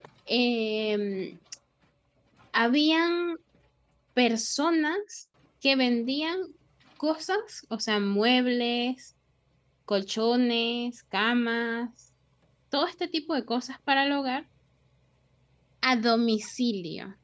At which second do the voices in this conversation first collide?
none

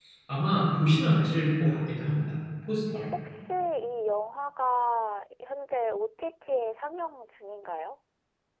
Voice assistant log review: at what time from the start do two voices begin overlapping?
none

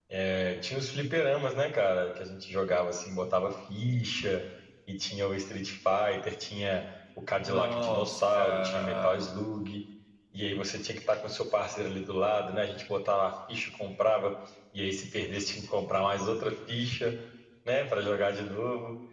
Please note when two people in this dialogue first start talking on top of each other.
7 s

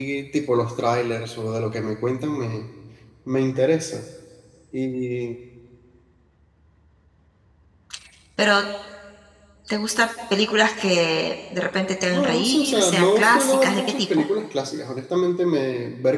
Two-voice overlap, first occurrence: 12 s

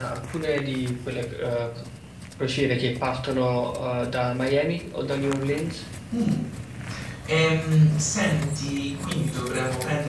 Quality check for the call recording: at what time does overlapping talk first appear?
none

